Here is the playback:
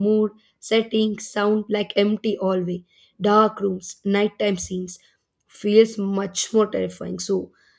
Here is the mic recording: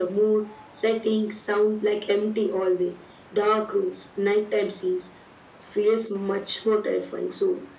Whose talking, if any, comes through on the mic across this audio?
echo only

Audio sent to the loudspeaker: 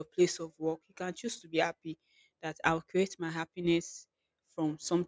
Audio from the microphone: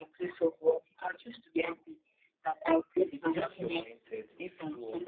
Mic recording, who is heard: both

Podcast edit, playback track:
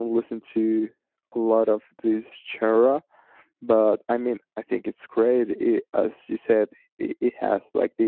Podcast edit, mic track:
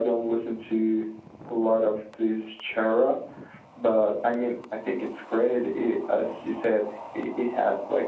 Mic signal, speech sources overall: echo only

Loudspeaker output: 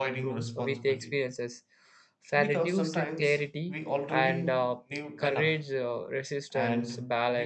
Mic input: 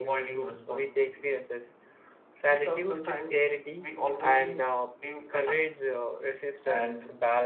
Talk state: echo only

